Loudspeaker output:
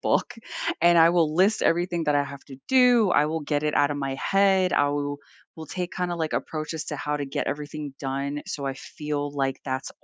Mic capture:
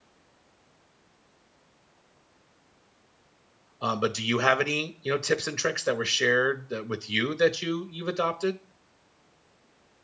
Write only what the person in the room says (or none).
um, but do you have any, you know, tips and tricks that were shared that with you that you you've adopted?